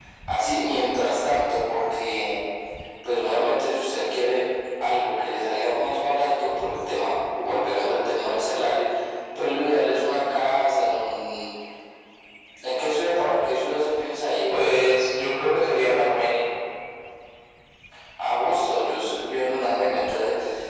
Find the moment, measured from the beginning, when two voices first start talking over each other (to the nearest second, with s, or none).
none